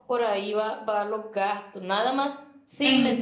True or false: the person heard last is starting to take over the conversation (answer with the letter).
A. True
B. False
B